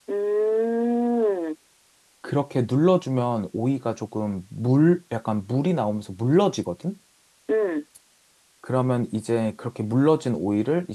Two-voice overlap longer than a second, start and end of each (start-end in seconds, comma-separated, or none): none